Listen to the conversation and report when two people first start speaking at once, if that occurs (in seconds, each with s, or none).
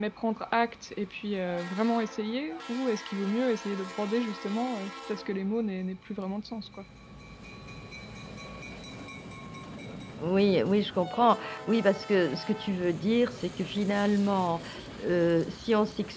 none